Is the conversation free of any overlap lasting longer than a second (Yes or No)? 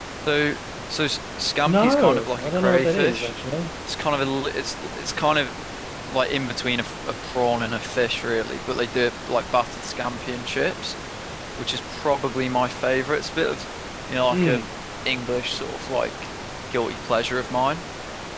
No